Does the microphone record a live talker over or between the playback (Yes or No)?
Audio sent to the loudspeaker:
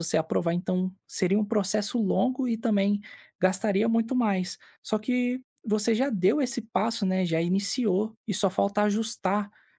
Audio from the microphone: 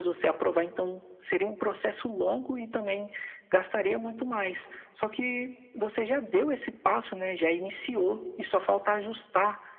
No